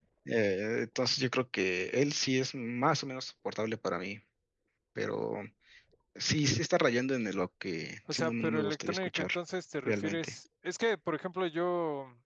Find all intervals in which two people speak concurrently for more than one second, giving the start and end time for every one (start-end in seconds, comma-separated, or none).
8.1-9.3